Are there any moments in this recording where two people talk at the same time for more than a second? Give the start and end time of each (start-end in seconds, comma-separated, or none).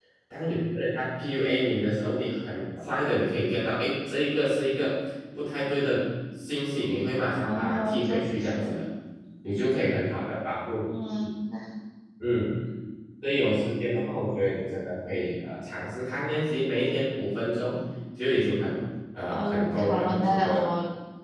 7.4-8.8, 19.3-20.7